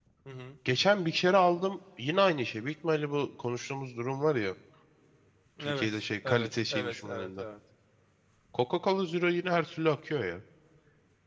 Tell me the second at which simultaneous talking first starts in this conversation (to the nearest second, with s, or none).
6 s